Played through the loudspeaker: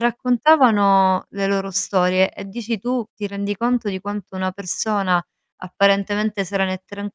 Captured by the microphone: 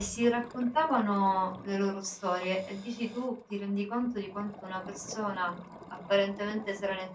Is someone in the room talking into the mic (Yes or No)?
No